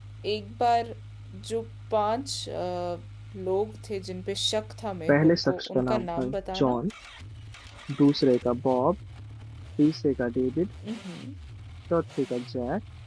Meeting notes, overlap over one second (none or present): present